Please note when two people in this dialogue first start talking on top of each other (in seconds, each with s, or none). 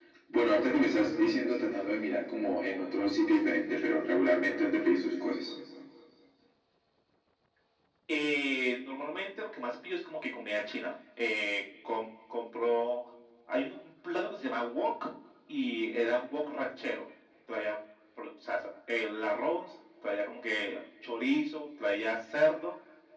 none